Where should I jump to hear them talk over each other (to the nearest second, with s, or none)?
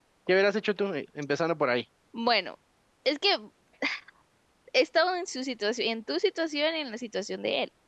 none